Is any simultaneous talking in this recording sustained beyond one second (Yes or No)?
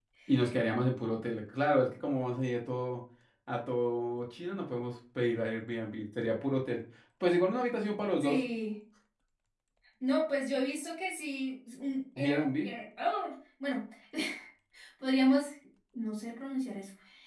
No